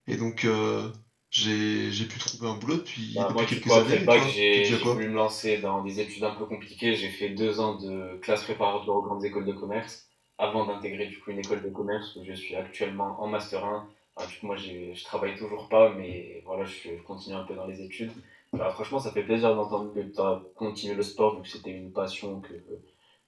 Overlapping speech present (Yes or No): Yes